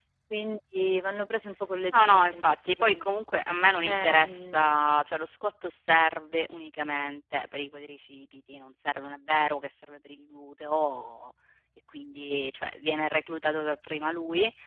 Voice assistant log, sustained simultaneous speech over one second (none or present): present